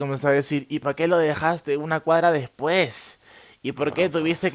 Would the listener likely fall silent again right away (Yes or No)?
Yes